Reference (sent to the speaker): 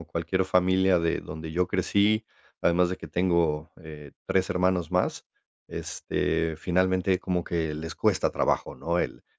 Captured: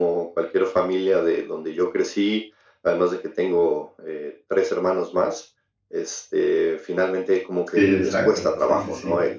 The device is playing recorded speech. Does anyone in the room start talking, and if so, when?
7.7 s

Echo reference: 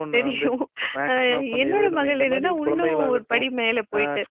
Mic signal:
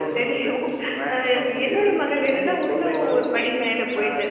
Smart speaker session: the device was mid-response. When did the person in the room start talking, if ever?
none

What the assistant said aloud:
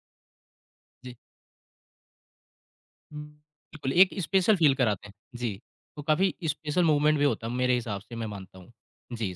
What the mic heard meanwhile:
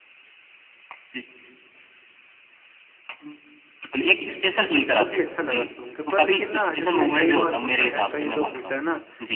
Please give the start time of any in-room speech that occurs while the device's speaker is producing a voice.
4.4 s

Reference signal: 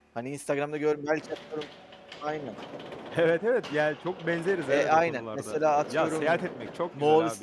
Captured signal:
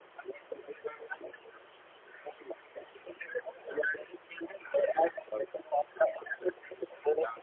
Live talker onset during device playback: none

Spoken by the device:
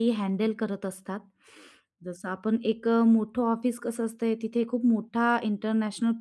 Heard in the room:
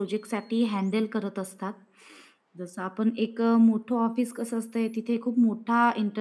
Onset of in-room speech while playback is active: none

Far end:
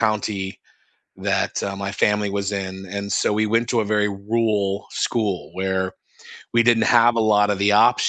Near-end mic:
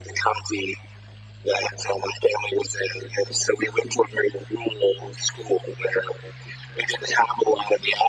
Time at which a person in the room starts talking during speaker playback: none

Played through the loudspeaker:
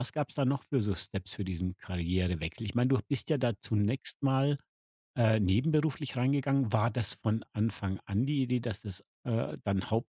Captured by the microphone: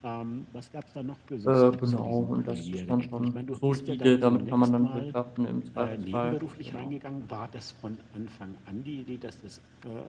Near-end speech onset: 1.4 s

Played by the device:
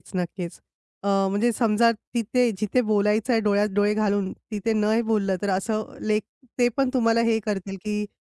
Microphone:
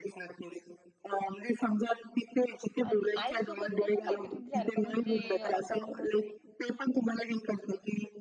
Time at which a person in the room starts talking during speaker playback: 2.8 s

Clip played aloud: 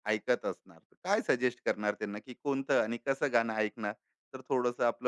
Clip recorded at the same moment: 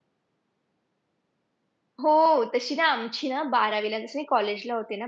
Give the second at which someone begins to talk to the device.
2.0 s

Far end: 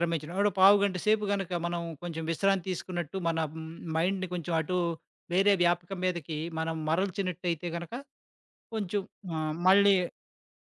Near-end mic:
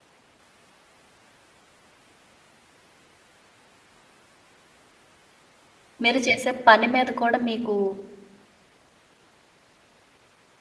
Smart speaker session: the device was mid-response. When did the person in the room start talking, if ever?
6.0 s

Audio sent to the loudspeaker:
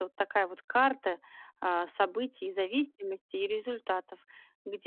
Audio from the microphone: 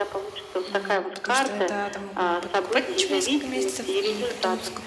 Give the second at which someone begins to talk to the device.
0.6 s

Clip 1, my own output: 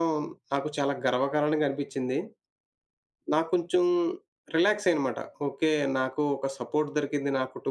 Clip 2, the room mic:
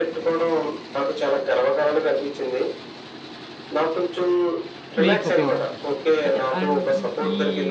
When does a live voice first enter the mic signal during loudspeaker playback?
5.0 s

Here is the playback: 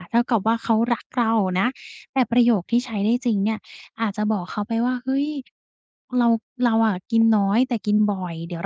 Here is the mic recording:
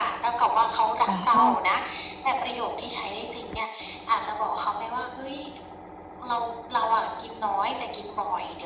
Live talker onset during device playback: 1.1 s

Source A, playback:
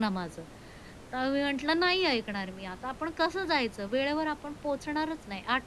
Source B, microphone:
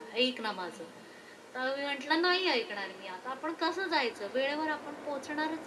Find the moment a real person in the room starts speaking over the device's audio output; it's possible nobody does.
none

